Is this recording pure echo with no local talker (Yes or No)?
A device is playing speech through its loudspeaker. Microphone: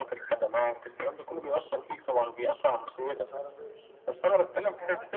No